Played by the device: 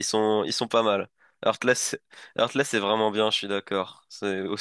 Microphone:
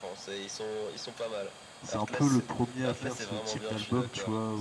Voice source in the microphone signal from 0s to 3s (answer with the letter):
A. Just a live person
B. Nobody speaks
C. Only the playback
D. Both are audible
D